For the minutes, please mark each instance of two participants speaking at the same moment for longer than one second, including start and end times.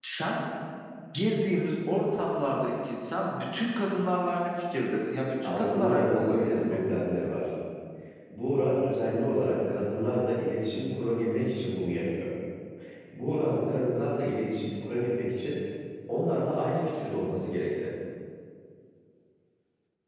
5.4-6.8

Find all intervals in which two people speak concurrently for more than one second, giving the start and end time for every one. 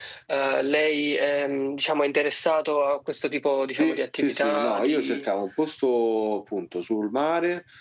3.8-5.2

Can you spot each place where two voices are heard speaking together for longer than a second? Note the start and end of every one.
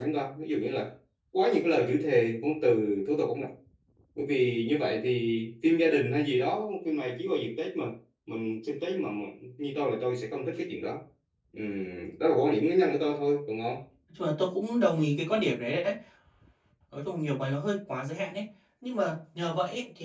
none

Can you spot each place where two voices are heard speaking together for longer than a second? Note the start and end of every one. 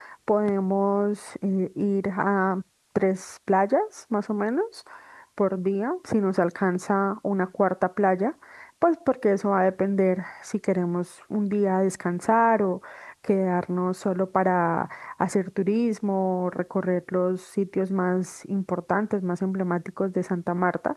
none

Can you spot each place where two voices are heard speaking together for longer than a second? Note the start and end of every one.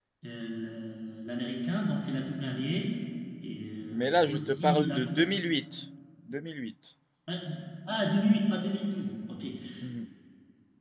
3.9-5.3

